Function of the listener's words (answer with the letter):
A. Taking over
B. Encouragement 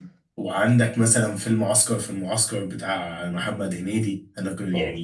B